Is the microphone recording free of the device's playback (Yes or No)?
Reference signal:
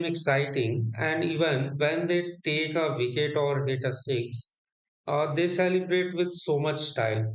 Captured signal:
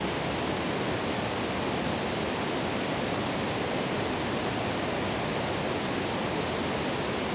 Yes